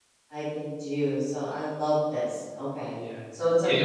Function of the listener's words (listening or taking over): taking over